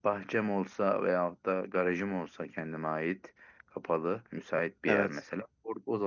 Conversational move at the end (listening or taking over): listening